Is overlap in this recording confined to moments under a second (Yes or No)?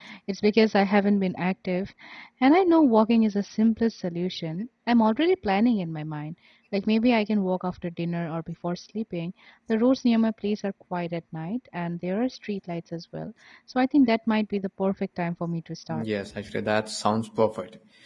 Yes